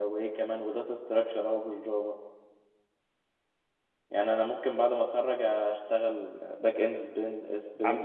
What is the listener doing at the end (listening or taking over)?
taking over